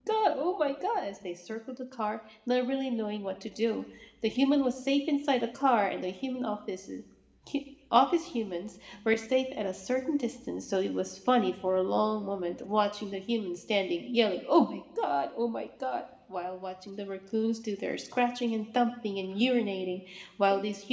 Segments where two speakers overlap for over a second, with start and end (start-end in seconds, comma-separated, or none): none